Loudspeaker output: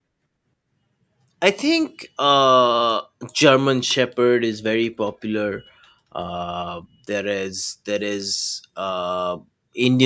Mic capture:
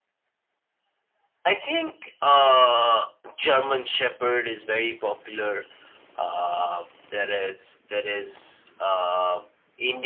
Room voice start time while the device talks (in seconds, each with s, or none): none